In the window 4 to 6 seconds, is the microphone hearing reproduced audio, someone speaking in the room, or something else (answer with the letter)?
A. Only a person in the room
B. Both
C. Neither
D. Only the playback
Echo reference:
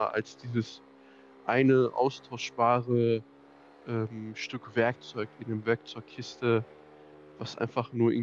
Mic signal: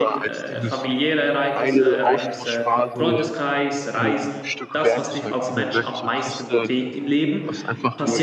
B